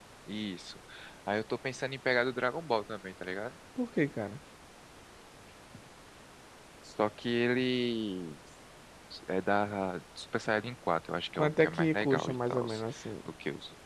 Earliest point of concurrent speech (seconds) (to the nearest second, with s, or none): 11 s